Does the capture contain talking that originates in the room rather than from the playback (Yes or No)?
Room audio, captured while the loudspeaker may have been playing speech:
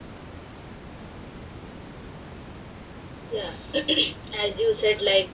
Yes